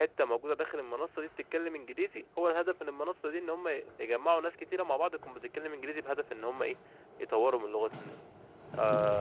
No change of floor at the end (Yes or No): No